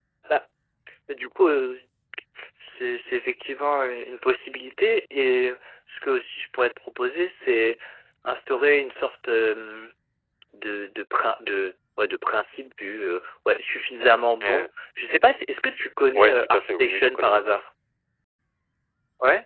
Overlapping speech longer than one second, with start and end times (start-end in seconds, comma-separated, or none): 16.1-17.5